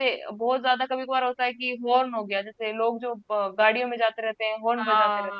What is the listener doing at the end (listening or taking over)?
taking over